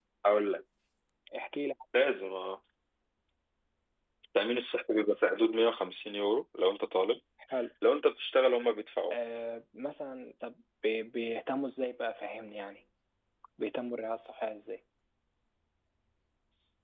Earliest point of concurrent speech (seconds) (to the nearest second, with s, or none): none